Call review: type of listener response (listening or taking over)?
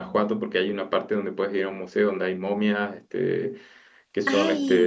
listening